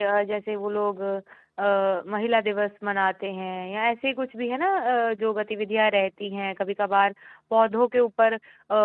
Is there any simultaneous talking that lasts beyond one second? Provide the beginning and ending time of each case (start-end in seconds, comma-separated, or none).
none